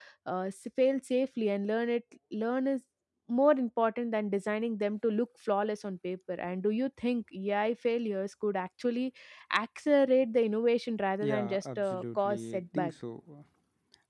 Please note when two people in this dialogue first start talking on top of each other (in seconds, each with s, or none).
11.2 s